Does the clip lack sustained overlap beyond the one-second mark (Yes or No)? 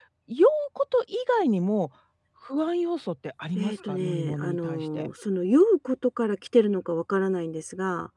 No